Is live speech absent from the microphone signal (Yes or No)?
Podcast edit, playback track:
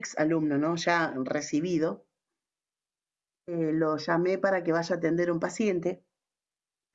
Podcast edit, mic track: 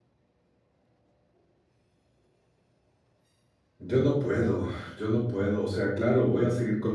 No